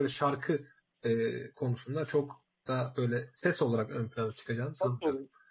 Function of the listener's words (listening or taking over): taking over